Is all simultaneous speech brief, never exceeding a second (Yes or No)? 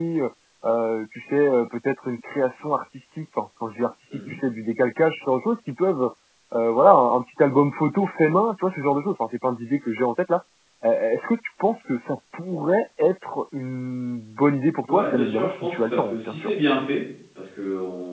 No